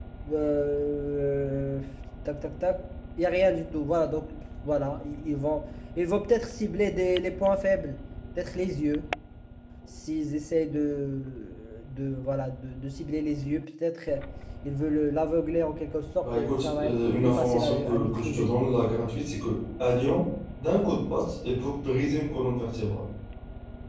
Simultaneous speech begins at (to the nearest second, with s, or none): 16 s